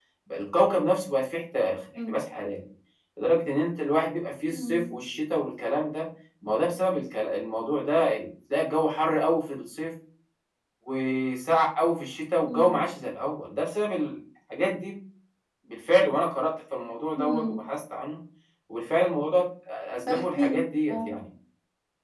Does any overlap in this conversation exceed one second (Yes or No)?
No